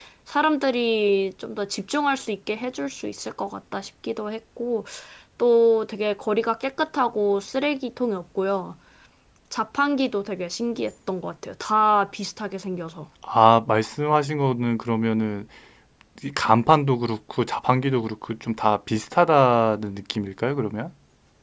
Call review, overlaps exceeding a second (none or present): none